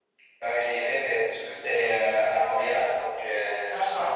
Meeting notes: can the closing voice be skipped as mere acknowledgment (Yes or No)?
Yes